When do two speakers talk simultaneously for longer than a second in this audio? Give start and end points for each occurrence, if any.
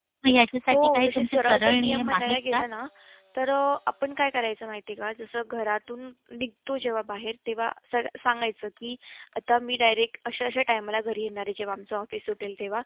0.7-2.6

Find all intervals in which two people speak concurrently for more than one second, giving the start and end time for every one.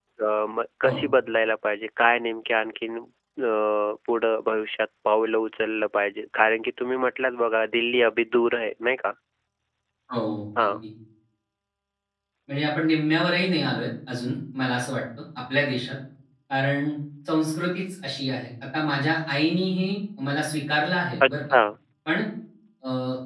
none

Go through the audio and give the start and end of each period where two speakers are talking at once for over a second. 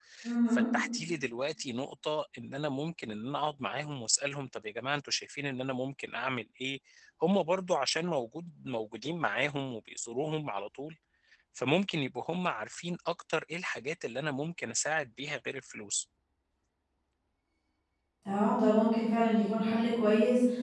none

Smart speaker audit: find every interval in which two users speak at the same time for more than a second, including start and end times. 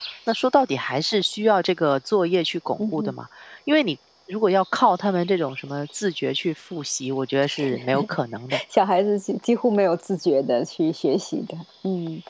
none

